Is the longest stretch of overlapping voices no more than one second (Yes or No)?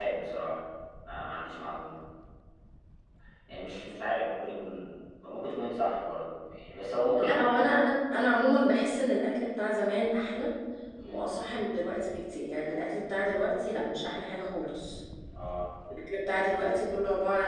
Yes